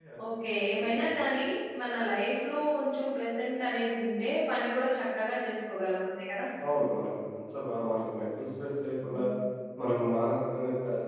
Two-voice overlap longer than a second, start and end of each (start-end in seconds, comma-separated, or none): none